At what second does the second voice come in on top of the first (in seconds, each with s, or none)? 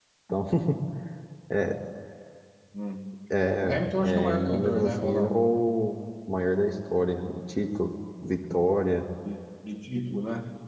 3.6 s